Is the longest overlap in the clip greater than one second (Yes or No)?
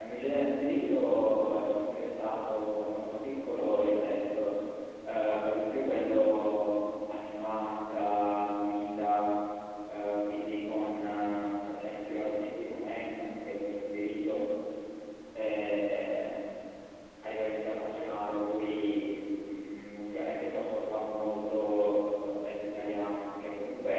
No